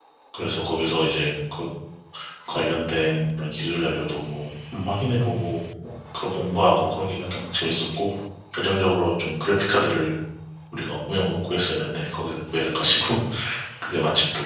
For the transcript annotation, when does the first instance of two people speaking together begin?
none

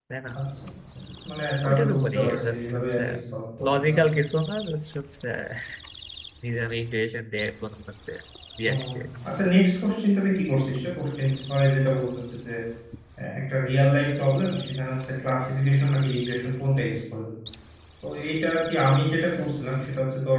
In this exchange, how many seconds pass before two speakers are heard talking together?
1.6 s

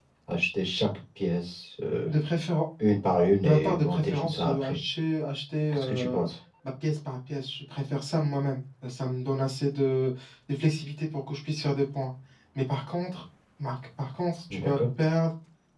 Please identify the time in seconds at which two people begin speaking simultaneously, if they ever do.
3.4 s

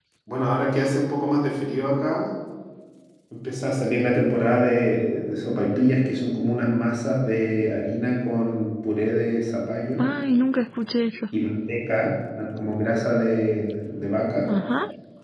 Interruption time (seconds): none

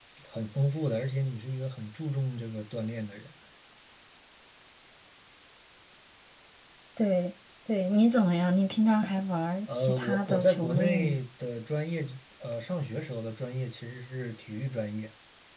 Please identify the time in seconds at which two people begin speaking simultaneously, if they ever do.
9.7 s

